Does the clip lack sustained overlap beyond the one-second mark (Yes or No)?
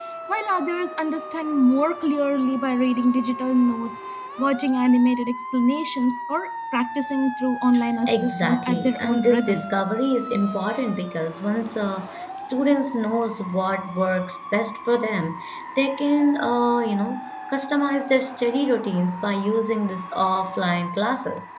No